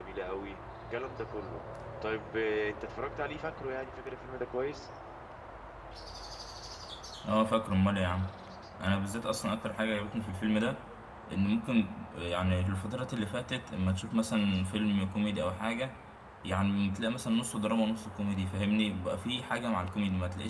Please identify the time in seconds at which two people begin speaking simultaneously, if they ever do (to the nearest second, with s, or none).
none